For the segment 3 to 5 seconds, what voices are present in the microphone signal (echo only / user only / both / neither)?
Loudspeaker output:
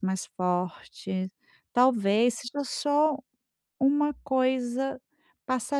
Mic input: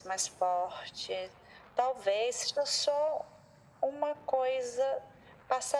echo only